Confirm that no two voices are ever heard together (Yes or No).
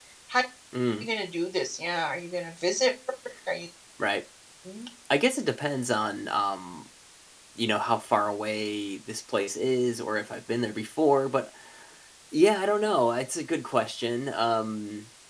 Yes